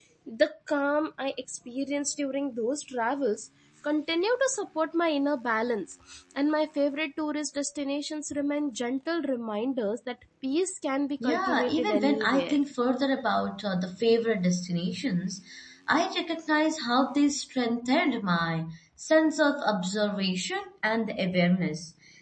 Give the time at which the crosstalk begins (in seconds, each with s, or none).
11.2 s